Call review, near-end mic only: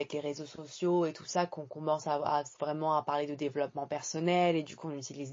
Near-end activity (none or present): present